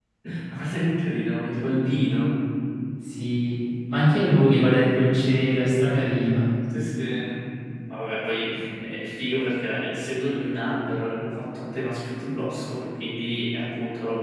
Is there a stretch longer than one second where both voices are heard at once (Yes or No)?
No